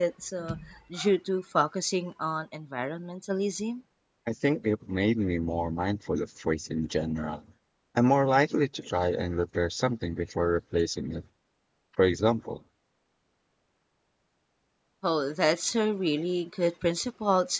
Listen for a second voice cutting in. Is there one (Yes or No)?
No